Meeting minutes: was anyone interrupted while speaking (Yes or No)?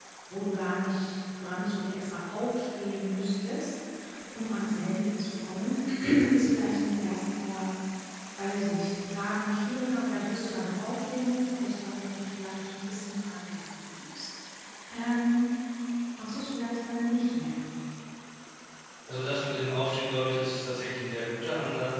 No